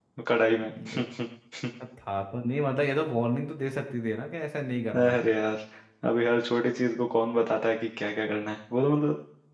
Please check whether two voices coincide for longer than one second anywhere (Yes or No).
No